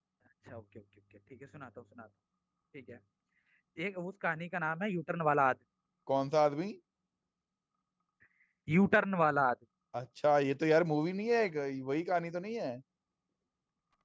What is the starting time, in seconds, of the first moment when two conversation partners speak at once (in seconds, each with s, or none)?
none